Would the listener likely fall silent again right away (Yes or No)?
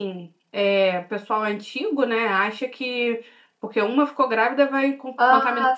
No